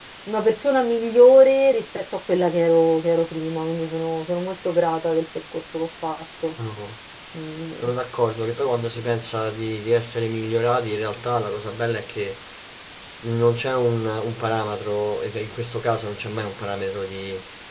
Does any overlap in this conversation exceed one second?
No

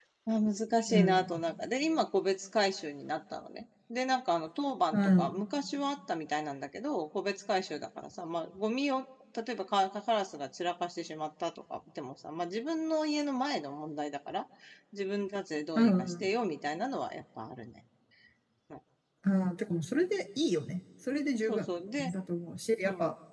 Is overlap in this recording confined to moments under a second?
Yes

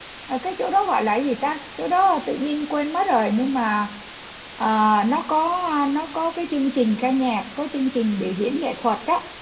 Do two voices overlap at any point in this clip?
No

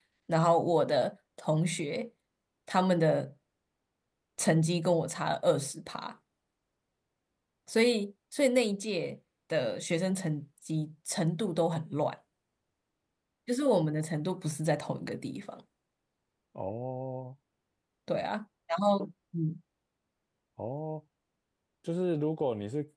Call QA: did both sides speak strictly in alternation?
Yes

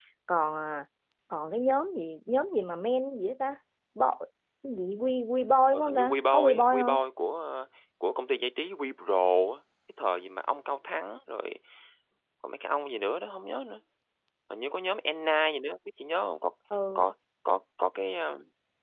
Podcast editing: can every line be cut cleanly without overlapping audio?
No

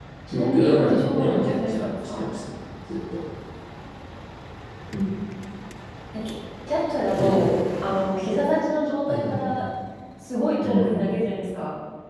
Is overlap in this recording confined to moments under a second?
No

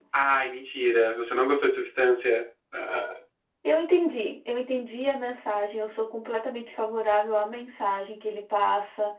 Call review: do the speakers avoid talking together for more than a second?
Yes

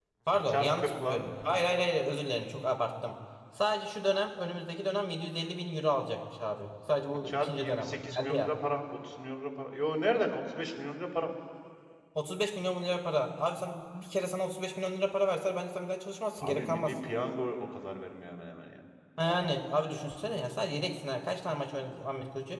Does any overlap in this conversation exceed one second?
Yes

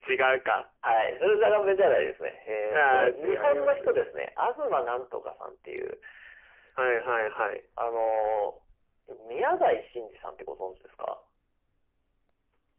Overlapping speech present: Yes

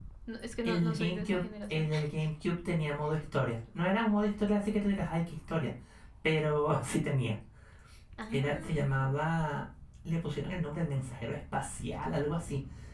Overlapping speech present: Yes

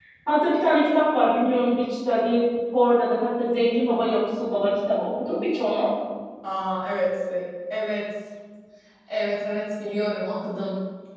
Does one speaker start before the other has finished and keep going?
No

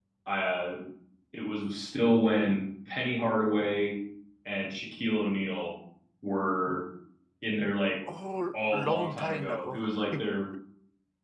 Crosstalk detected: Yes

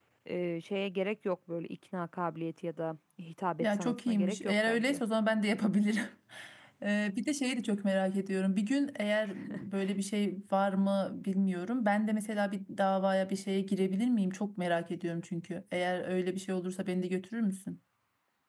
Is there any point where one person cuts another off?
Yes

